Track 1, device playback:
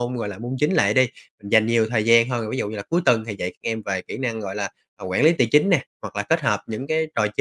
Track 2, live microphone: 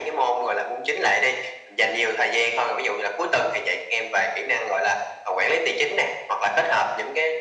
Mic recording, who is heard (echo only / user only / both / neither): echo only